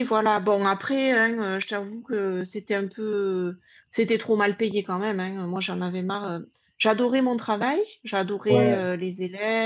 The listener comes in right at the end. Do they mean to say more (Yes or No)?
No